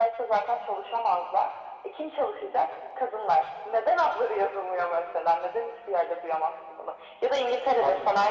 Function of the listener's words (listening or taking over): listening